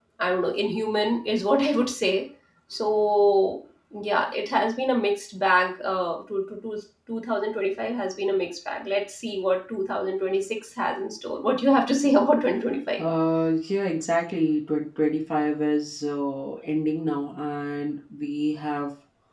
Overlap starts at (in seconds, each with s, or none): none